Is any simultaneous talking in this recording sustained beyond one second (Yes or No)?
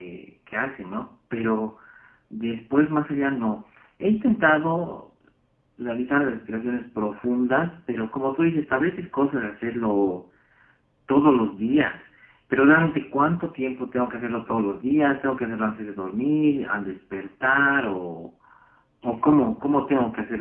No